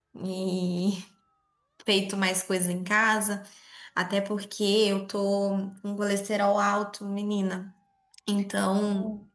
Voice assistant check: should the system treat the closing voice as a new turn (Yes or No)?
No